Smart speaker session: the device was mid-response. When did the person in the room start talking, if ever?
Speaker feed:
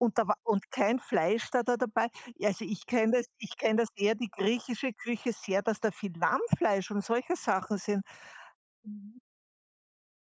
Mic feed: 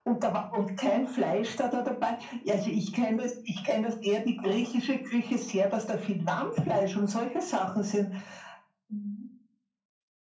none

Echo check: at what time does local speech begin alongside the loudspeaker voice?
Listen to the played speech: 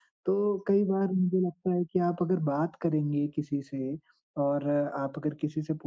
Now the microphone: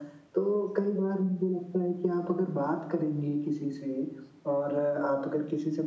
none

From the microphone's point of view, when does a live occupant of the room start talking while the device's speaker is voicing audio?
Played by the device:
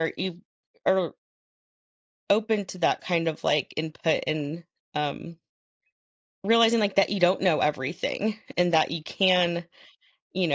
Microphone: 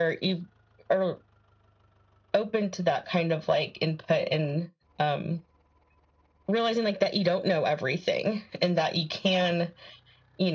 none

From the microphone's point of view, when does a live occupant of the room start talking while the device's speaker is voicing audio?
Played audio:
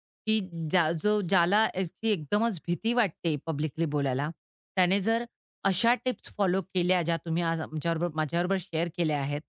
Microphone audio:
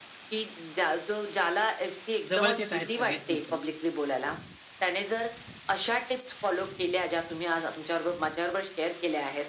2.3 s

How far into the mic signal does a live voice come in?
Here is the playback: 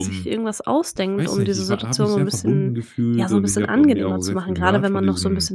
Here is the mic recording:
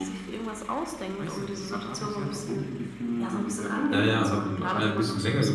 3.9 s

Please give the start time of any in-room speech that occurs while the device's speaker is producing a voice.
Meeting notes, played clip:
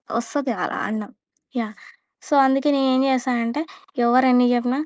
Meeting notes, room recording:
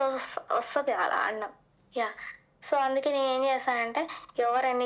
none

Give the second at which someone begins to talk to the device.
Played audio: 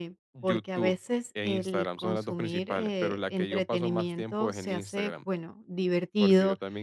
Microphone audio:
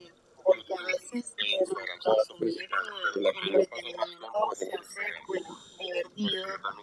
none

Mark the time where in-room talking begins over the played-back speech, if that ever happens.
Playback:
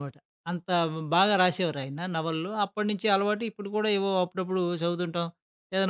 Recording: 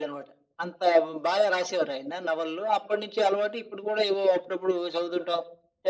none

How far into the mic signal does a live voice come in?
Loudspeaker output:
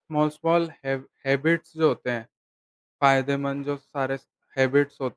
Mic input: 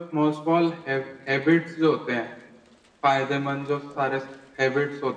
none

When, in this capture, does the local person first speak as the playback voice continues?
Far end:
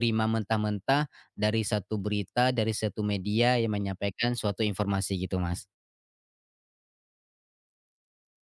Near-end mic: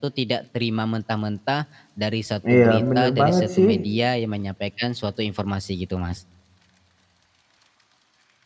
2.5 s

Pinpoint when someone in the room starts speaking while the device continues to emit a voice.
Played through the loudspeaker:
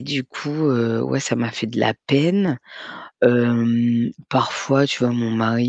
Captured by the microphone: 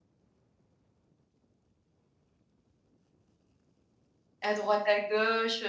4.4 s

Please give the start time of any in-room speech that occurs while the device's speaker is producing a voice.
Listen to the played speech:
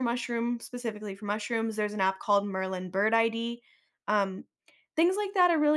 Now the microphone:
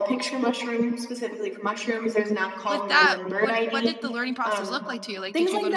2.7 s

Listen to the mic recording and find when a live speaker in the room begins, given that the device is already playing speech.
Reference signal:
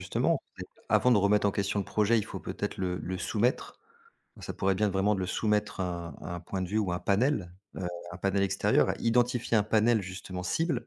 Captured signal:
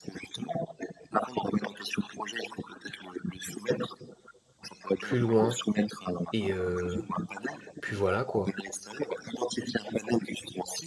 5.0 s

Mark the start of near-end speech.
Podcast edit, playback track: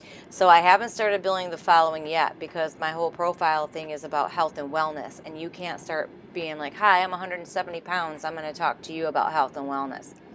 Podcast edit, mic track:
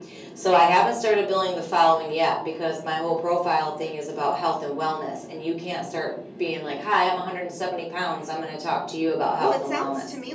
9.4 s

